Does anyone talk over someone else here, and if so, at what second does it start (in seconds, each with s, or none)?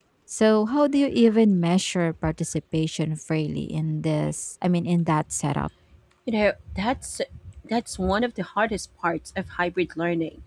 none